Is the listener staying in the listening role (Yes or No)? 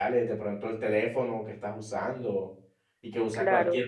Yes